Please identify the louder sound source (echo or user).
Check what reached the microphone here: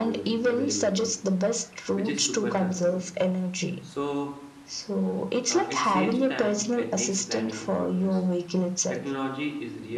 echo